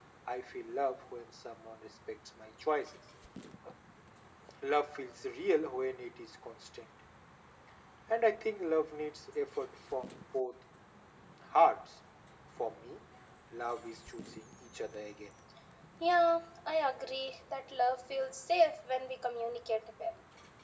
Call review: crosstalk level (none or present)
none